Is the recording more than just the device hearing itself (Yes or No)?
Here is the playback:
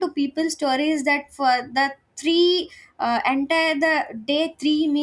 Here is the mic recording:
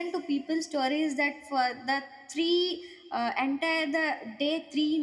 No